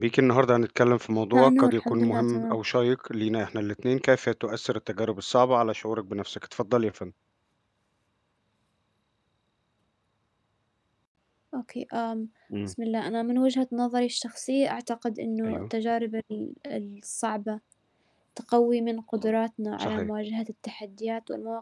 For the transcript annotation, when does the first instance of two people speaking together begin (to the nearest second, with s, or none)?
1 s